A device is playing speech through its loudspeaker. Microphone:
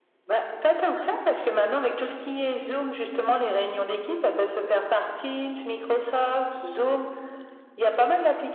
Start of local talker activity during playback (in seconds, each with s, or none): none